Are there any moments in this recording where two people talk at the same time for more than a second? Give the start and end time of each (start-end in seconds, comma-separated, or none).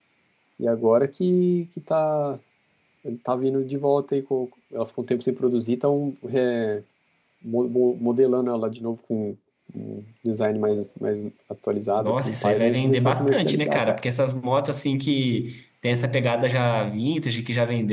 12.0-14.0